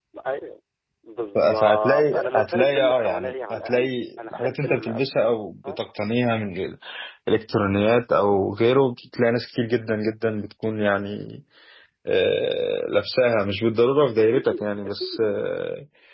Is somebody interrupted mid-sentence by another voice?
Yes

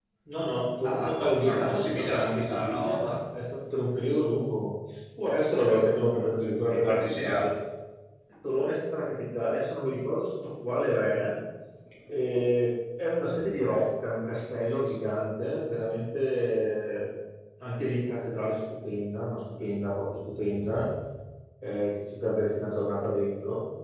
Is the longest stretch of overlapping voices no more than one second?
No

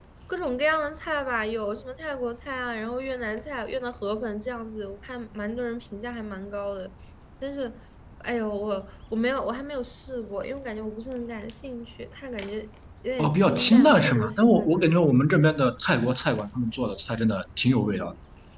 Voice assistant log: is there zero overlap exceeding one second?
No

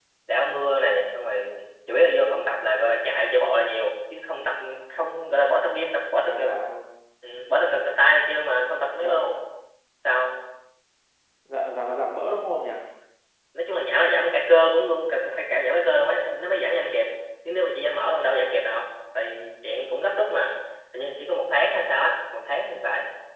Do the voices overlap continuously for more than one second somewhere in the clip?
No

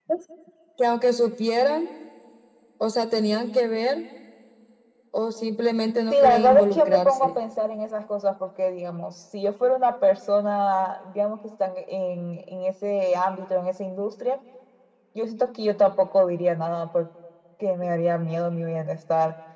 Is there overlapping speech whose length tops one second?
Yes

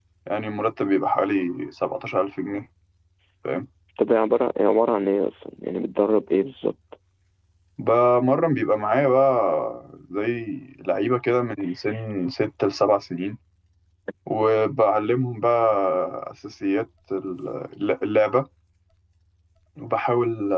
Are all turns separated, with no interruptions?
Yes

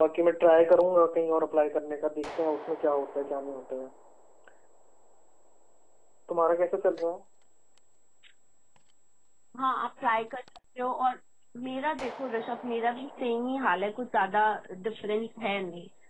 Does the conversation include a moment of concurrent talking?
No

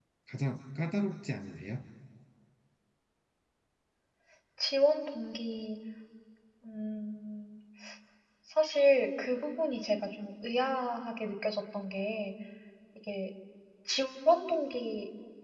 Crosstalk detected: No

